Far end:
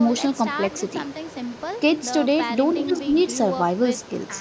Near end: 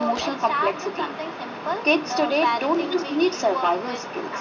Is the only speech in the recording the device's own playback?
Yes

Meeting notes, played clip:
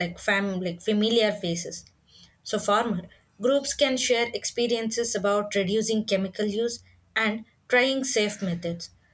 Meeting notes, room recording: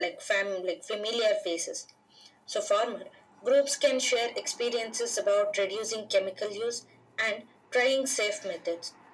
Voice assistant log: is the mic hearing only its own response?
Yes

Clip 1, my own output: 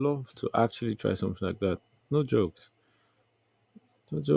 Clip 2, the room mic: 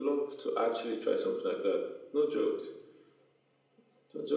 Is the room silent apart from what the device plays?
Yes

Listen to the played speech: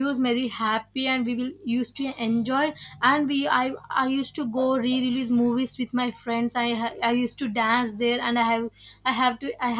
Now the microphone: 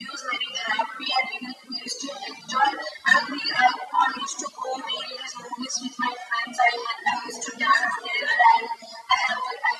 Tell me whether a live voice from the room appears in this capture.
No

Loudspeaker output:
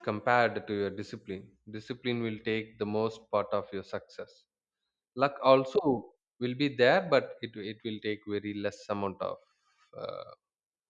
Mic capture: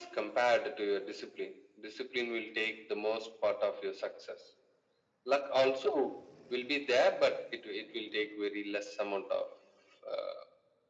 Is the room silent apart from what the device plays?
Yes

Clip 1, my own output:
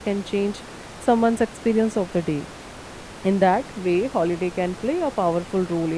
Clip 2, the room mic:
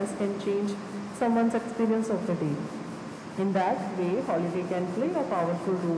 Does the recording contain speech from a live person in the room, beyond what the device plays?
No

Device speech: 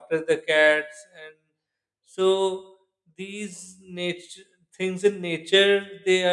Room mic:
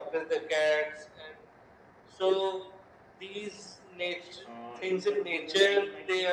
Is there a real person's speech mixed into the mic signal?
Yes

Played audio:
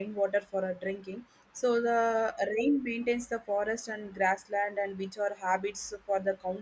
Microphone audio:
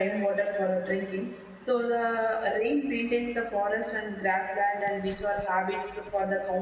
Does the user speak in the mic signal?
No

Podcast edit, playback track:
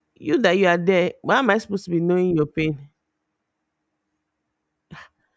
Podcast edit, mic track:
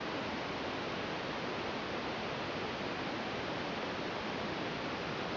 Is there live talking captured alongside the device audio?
No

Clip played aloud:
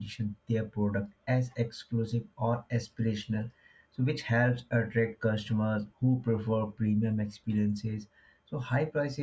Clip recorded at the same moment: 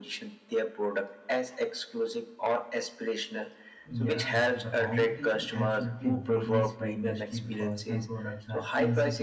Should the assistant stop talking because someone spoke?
Yes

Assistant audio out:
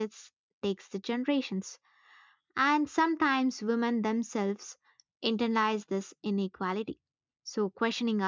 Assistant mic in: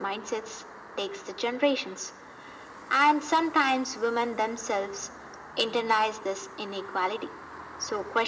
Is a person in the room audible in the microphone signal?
No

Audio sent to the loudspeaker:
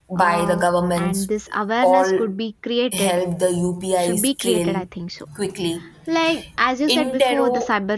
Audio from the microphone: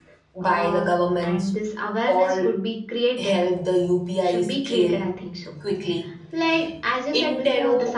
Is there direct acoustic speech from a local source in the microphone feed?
No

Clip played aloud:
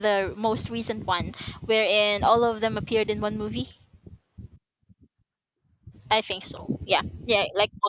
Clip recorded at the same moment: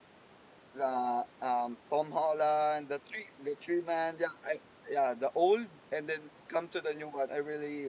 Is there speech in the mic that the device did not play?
Yes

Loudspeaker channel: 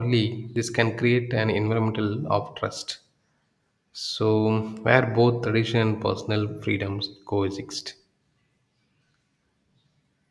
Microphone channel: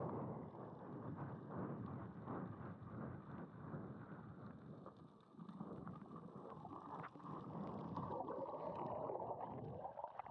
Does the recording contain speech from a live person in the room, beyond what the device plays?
No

